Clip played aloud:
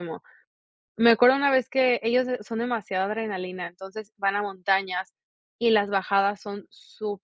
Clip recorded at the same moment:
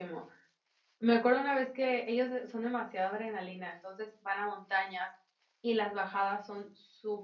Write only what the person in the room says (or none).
none